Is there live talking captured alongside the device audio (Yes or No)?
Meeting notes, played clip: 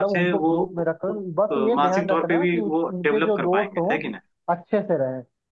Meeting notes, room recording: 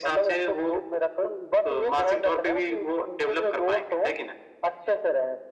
No